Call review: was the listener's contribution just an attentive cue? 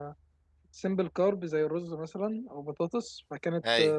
Yes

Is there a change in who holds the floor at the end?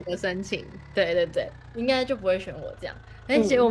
No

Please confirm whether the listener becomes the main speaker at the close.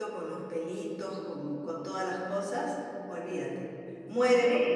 Yes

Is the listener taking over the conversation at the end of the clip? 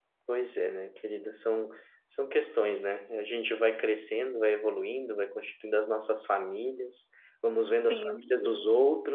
No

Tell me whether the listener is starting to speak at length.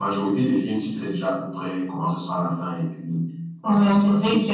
Yes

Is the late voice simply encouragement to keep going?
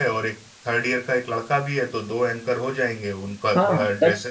No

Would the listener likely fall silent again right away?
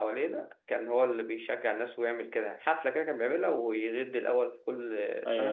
No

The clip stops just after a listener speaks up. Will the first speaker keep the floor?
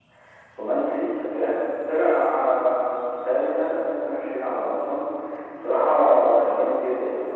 Yes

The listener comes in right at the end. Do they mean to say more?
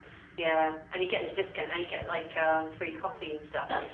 Yes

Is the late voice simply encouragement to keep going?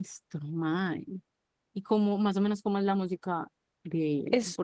No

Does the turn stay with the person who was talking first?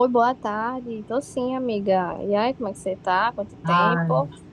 No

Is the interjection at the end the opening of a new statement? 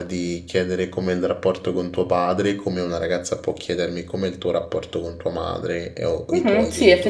Yes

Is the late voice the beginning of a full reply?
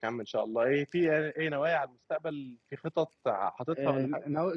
Yes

